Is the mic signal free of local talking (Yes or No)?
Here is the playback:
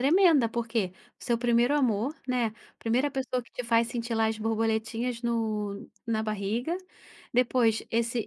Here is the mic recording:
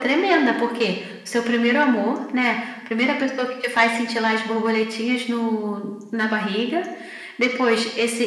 Yes